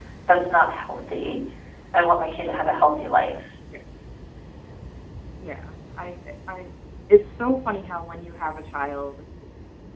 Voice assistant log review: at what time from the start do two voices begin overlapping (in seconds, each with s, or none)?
none